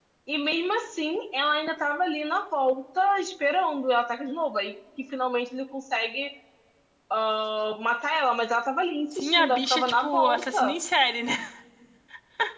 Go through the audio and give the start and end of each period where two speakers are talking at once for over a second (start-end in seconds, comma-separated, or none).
9.1-10.8